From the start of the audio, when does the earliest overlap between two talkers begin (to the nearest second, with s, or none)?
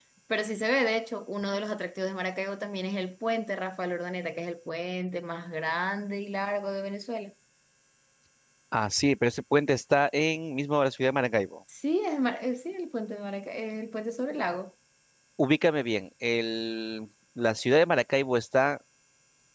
none